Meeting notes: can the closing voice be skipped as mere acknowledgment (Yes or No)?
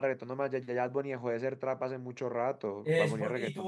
No